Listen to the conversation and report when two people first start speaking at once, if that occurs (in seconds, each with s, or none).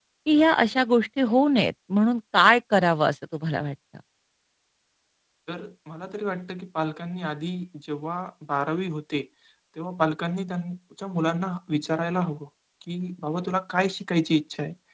none